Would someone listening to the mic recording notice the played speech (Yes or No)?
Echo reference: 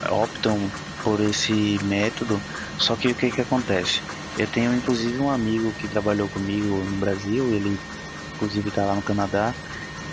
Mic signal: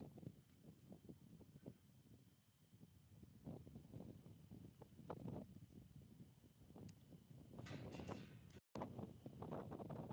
No